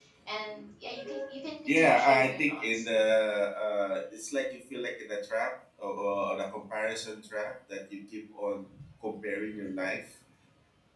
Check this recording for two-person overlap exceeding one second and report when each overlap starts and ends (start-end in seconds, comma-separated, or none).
1.7-2.9